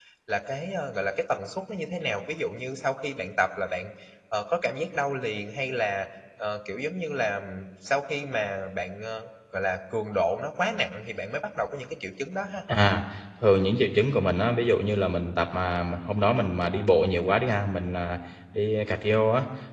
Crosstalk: none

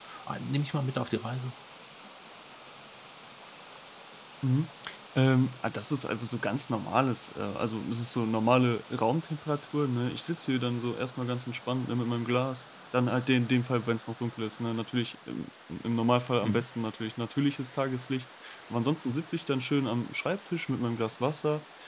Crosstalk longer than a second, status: none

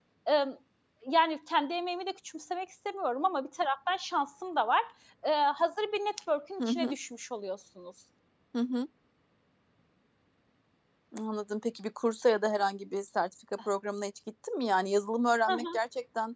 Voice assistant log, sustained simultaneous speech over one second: none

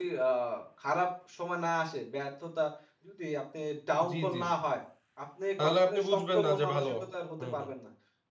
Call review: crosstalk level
present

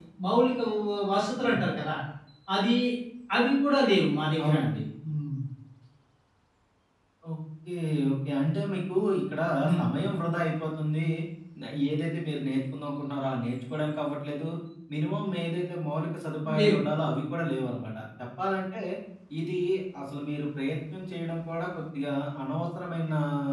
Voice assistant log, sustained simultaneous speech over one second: none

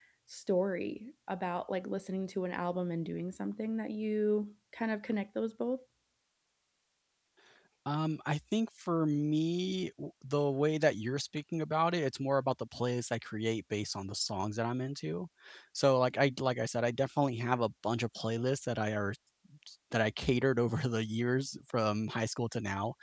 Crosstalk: none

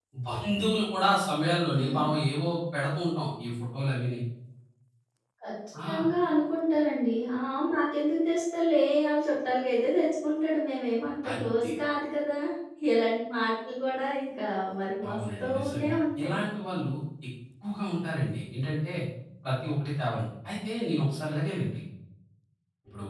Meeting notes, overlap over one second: present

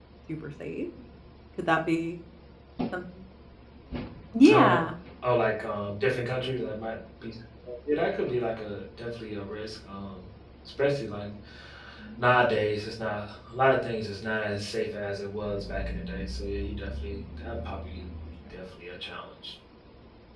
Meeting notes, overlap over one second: none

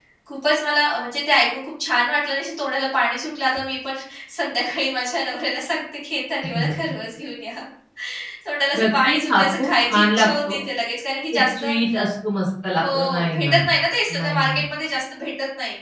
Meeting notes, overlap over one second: present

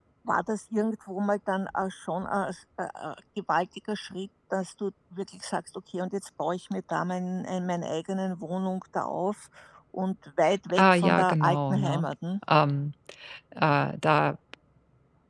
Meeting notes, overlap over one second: present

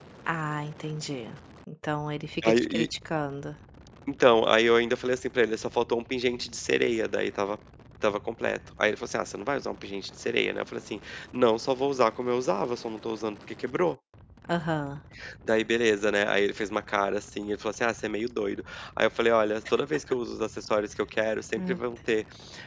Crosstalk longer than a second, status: none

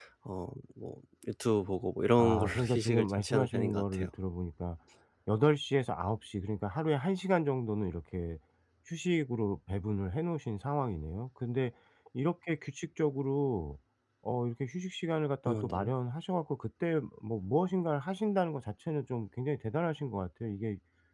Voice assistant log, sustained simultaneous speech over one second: present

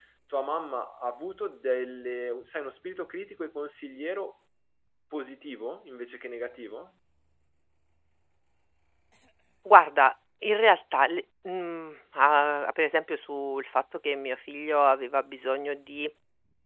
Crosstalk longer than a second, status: none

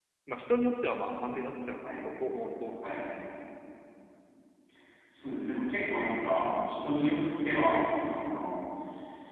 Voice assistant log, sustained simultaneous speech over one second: none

